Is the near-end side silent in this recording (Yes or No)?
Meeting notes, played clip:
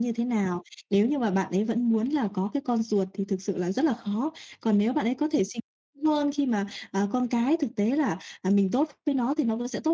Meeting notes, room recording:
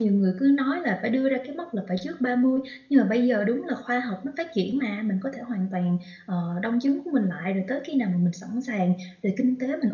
No